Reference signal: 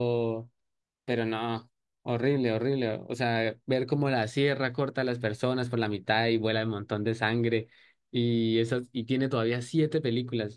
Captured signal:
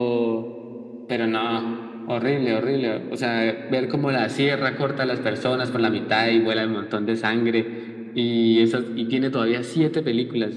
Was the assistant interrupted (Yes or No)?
No